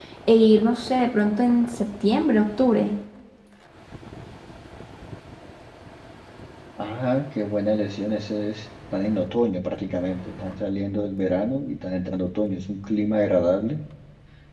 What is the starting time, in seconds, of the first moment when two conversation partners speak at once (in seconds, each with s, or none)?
none